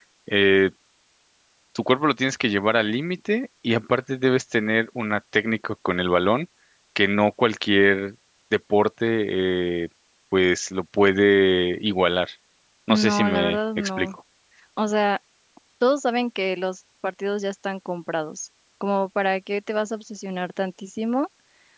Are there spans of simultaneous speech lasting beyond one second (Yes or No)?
Yes